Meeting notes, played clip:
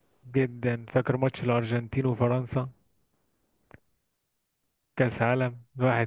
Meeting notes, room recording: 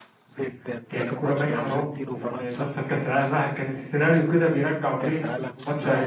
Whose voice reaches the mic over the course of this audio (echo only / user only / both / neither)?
both